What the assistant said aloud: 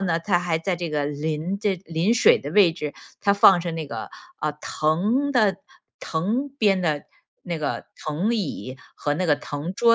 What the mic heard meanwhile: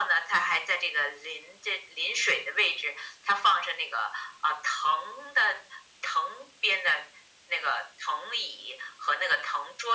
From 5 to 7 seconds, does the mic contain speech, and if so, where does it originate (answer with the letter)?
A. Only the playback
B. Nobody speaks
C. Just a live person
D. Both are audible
A